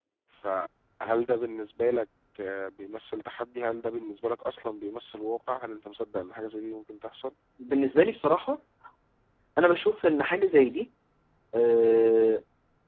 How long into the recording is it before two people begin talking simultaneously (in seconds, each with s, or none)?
none